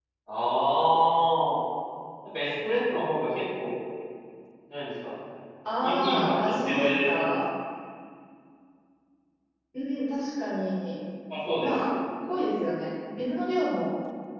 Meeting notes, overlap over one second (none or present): present